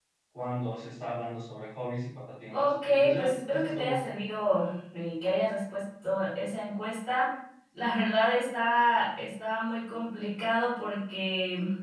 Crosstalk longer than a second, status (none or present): present